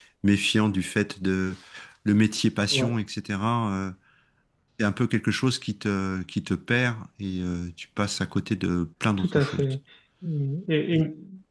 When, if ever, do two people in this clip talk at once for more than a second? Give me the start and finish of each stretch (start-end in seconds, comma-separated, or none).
none